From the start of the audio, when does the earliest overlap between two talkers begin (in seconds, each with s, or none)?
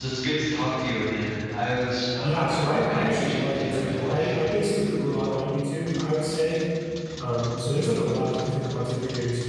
2.2 s